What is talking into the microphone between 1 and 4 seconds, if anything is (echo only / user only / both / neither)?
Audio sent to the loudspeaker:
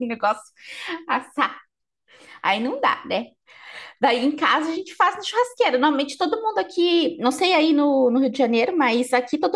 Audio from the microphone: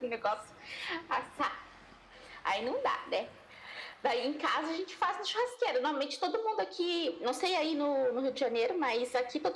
echo only